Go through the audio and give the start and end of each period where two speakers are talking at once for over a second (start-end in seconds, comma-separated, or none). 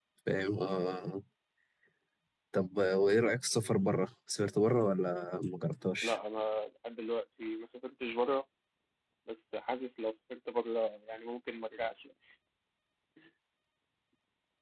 none